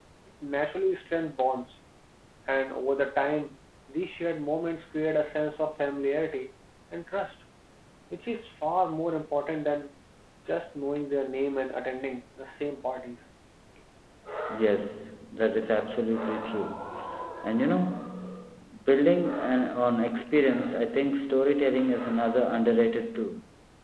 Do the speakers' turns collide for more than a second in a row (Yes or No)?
No